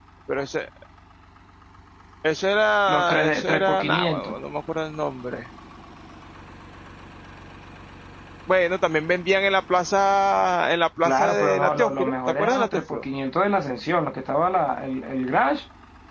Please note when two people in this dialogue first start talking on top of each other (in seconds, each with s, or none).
2.9 s